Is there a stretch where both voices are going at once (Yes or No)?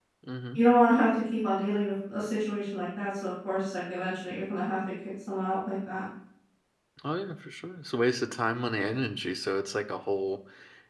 No